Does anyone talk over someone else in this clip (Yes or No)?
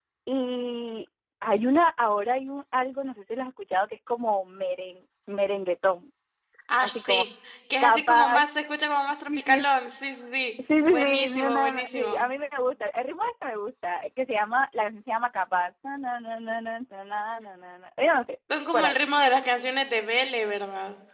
Yes